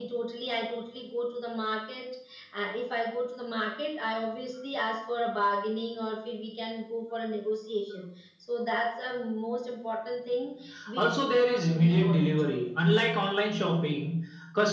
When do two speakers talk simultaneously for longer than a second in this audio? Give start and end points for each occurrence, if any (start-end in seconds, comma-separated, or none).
11.0-12.5